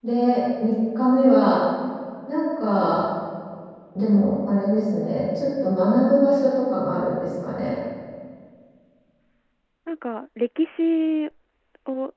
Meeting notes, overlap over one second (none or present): none